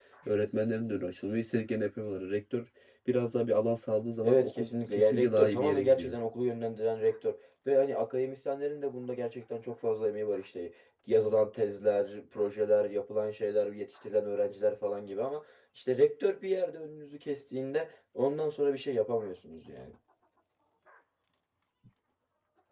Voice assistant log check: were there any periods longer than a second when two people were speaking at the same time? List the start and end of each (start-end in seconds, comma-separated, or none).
4.2-6.2